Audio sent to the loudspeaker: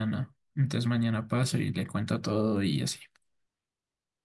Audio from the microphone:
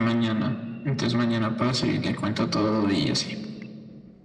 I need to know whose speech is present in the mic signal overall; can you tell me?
echo only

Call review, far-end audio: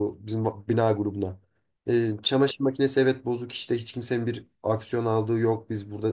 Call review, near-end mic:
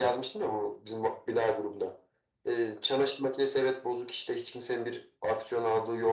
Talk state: echo only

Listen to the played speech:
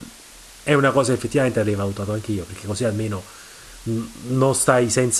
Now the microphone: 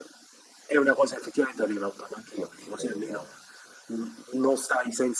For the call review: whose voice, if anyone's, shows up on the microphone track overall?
both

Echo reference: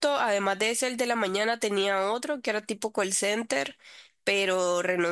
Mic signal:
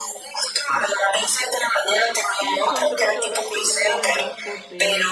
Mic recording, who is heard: both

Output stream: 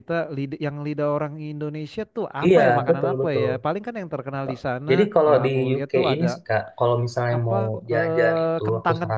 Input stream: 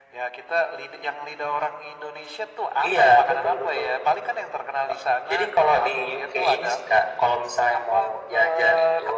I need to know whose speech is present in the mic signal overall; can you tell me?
echo only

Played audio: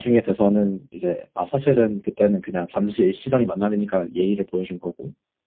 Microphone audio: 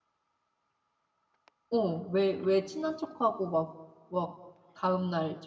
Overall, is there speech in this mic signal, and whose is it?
user only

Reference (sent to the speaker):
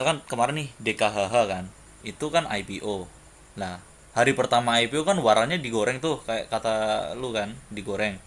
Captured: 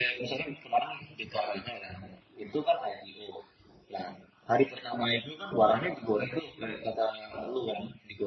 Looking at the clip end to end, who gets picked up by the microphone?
echo only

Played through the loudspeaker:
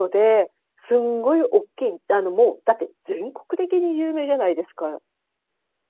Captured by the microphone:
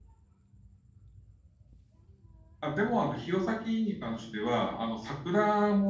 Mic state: user only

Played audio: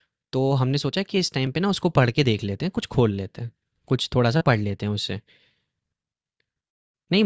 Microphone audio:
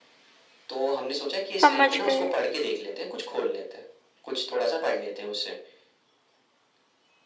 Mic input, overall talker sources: both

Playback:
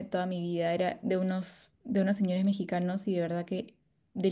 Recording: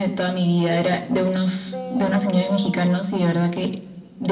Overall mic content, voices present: both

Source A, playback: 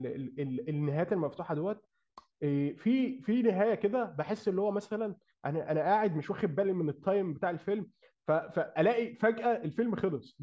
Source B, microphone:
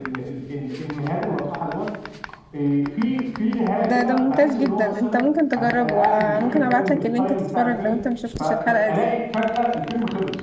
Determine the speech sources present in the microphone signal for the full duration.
both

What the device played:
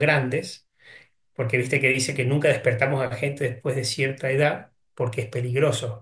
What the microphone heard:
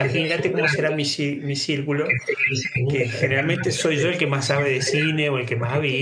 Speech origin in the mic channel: both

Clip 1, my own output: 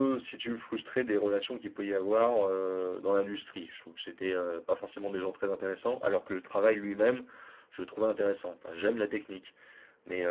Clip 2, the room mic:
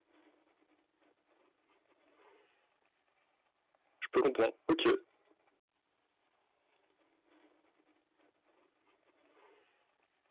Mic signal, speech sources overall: user only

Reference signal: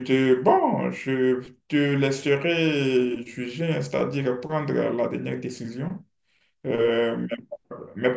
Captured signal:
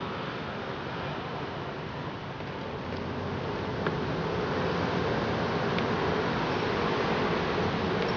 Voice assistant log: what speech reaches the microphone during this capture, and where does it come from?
neither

